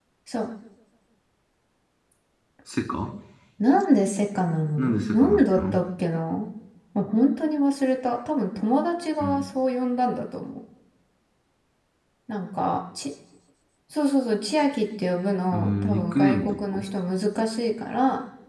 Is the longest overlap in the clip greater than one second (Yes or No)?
Yes